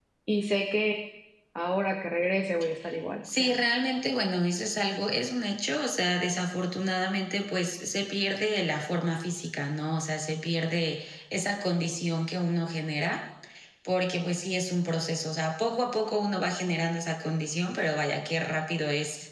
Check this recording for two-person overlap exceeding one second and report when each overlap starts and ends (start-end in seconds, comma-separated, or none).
none